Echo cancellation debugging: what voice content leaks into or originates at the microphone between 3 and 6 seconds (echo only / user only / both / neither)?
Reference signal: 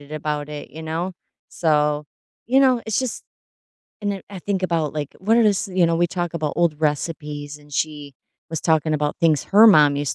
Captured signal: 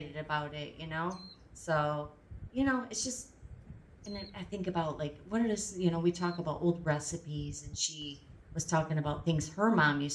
echo only